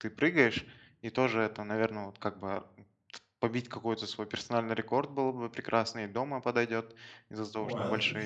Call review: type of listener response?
listening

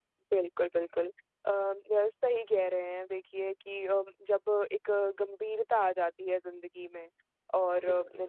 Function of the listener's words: listening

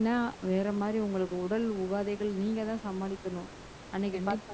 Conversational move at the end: taking over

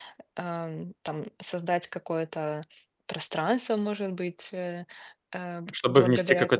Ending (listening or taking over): taking over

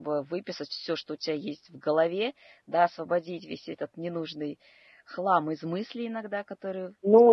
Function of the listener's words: taking over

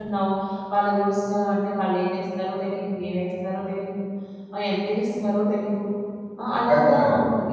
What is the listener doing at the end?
listening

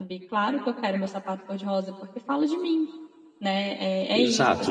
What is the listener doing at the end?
taking over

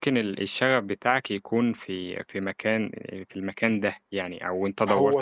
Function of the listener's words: taking over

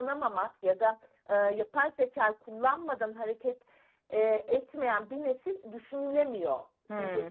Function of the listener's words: taking over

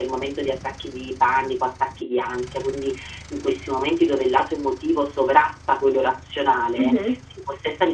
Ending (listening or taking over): listening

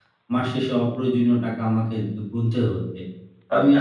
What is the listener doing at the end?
listening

